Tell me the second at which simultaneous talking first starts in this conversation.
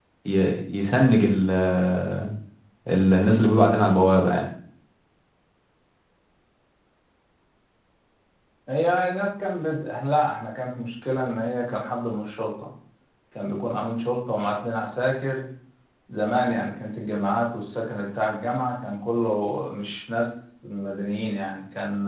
none

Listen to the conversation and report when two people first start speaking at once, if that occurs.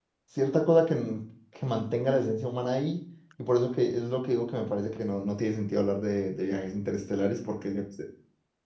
none

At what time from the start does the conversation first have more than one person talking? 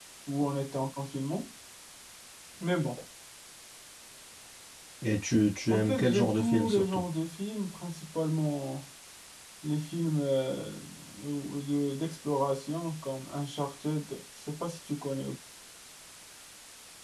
6 s

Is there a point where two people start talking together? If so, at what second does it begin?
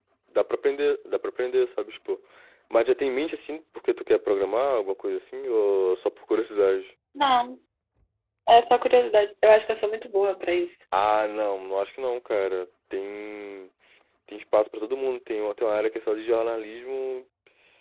none

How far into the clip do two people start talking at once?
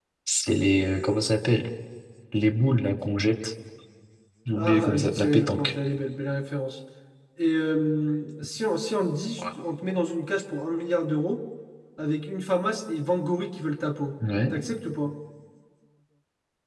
5 s

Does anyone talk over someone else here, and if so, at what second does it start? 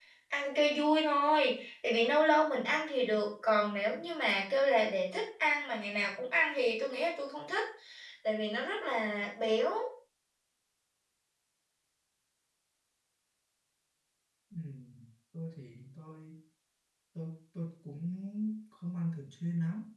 none

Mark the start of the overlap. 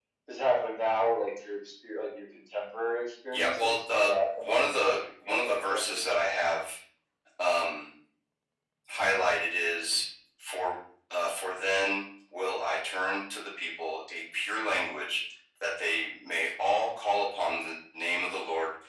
3 s

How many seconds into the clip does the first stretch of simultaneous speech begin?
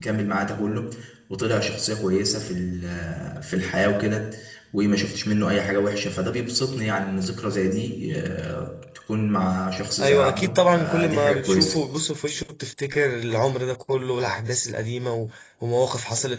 10 s

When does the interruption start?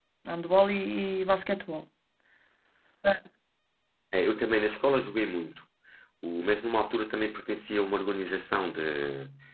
none

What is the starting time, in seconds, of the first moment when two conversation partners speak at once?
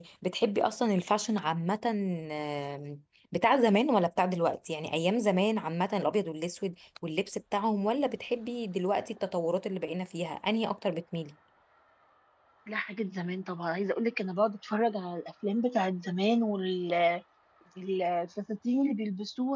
none

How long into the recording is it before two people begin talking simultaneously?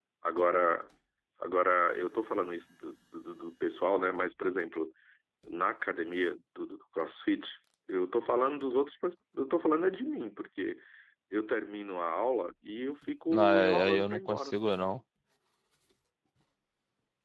13 s

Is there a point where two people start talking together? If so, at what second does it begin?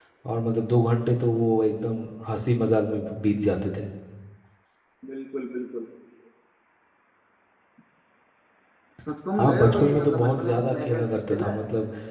9 s

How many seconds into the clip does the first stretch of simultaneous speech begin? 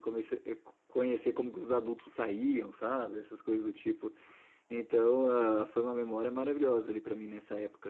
none

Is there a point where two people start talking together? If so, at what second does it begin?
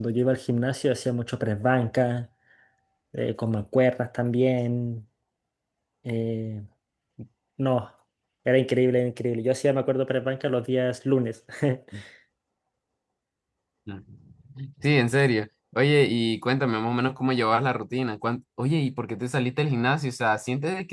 none

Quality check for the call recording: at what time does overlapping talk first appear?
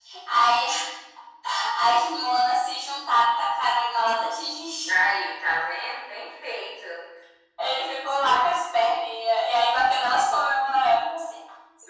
none

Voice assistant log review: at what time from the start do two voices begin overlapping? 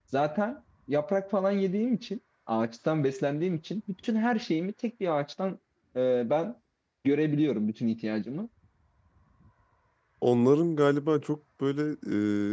none

